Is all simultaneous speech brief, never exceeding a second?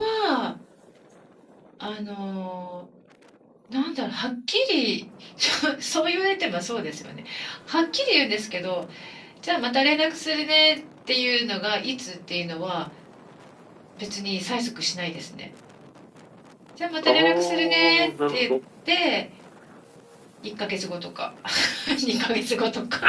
No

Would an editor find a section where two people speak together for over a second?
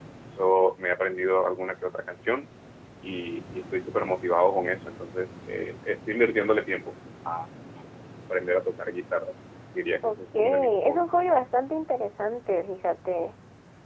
Yes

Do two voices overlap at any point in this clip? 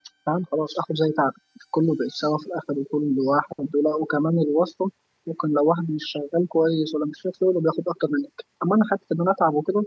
No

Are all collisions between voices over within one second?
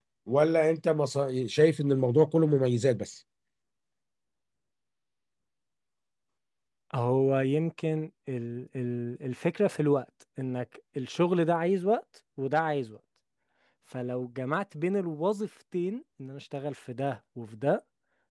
Yes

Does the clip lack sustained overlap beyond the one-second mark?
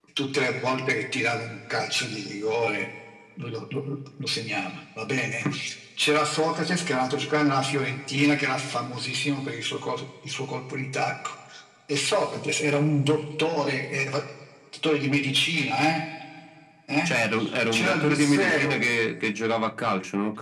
No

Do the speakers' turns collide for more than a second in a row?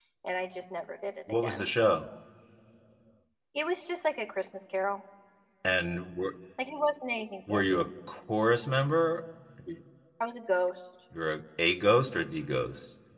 No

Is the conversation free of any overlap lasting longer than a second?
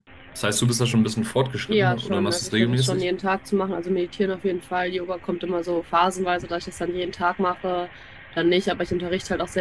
No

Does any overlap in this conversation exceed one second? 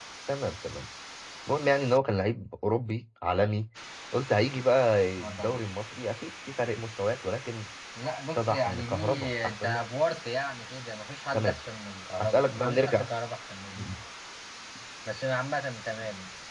Yes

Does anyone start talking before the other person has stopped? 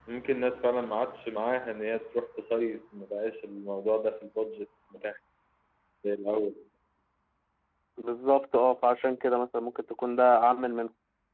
No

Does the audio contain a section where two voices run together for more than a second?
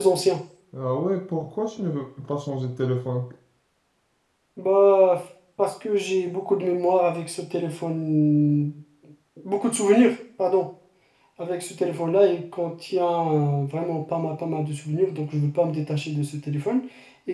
No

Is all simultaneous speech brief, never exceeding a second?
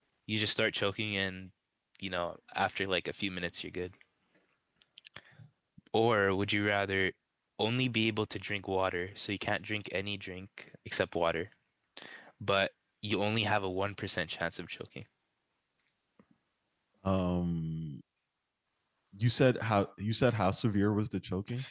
Yes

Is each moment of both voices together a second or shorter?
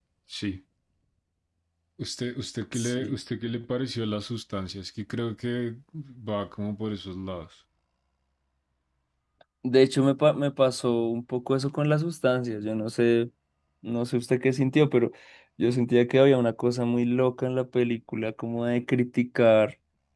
Yes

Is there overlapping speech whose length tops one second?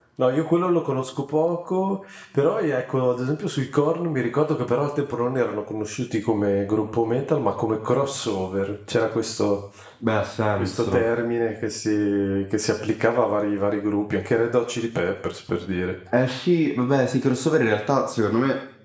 No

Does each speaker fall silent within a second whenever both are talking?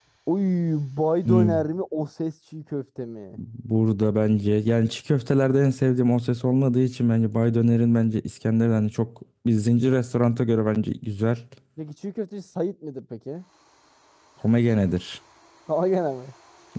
Yes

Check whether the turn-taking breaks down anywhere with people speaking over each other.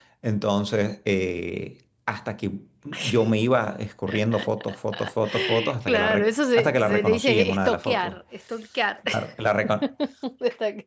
Yes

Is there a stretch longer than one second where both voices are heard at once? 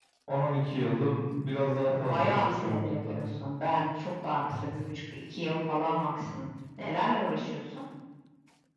Yes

